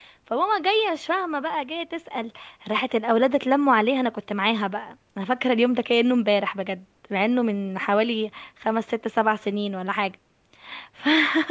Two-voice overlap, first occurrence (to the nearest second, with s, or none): none